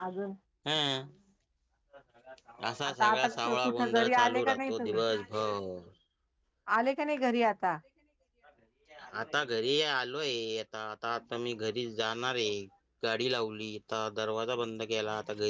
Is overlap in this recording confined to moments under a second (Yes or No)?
No